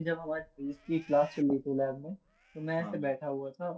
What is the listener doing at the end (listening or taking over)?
listening